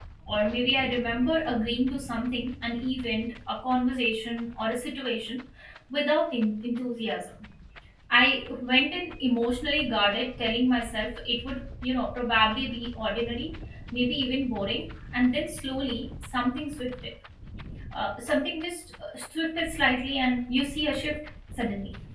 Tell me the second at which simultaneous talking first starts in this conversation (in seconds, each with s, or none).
none